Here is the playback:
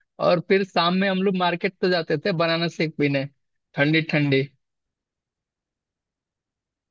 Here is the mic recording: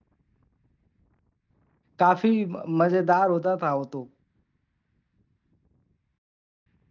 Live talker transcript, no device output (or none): काफी म- मजेदार होता था वो तो